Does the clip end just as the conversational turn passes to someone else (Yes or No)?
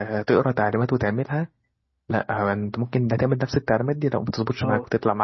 Yes